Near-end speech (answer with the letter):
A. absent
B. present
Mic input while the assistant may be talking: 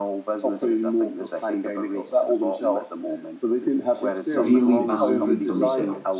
B